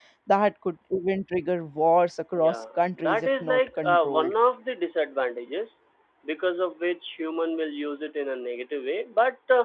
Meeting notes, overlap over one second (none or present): present